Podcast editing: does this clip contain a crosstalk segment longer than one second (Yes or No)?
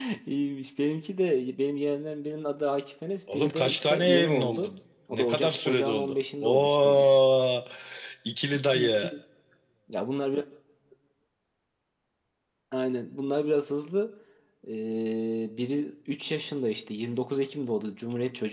Yes